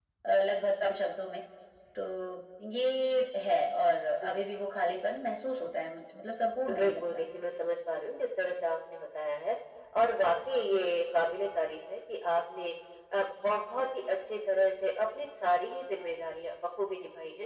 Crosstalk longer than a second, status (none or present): none